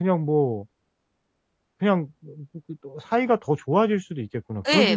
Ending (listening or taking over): taking over